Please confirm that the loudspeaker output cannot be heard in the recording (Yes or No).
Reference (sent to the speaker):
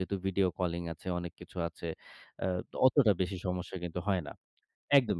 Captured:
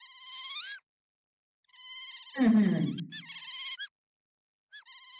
Yes